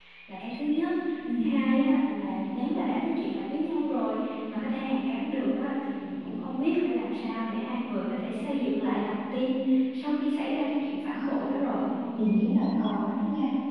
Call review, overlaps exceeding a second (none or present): none